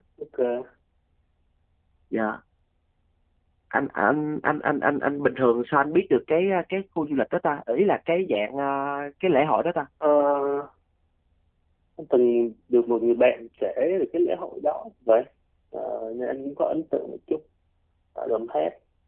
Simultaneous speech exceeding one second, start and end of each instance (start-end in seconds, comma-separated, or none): none